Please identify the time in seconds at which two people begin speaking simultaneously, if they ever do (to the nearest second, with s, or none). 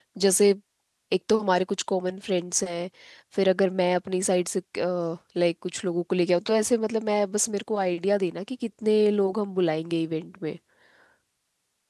none